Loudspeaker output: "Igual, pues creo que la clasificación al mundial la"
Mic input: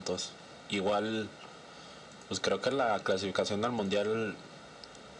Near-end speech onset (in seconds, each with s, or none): none